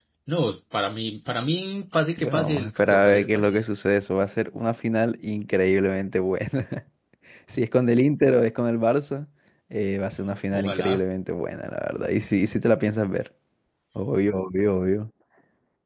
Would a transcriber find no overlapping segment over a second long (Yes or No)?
No